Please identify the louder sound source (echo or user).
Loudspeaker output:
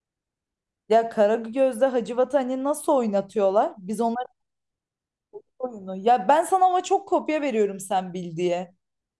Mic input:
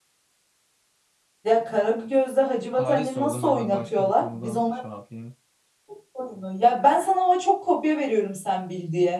echo